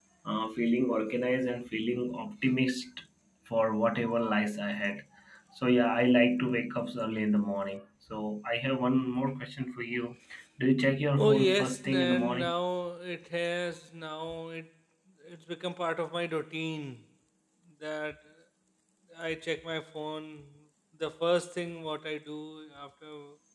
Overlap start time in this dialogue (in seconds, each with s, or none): 11.2 s